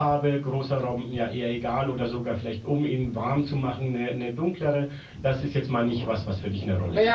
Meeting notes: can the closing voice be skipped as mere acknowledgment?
No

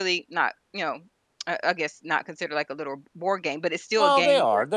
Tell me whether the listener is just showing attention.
No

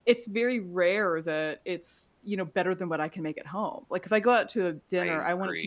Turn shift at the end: No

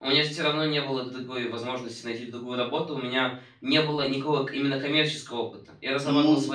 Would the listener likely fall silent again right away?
Yes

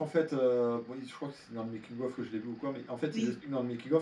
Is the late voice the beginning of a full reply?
No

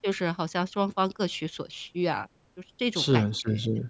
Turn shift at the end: Yes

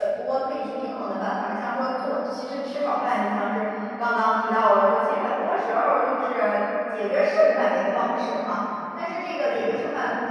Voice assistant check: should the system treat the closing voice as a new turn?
No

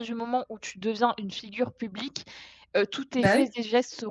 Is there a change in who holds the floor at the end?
No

